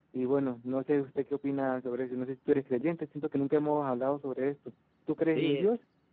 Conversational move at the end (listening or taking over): taking over